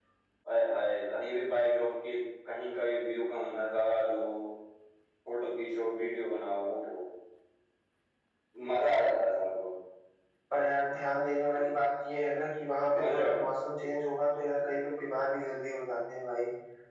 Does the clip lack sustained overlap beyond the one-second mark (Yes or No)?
Yes